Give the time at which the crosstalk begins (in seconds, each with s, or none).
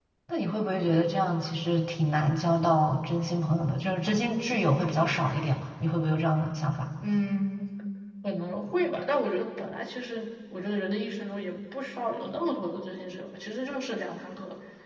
none